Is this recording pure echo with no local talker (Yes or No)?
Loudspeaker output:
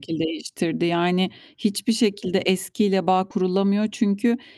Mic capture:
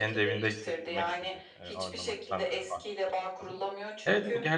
No